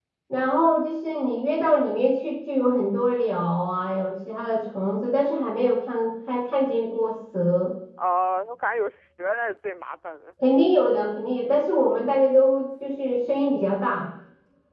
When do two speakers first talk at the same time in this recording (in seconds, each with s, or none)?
none